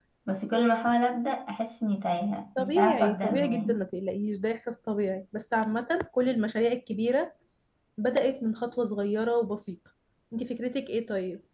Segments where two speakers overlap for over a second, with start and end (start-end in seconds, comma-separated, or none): 2.6-3.8